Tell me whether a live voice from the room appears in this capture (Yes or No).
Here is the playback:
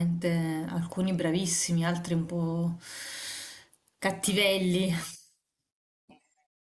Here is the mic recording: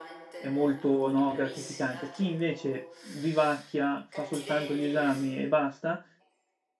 Yes